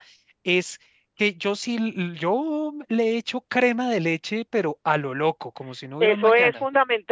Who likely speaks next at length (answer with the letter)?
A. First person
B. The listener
B